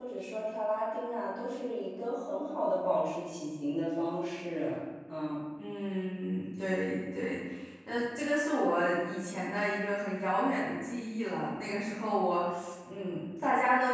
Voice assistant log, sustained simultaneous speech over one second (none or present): none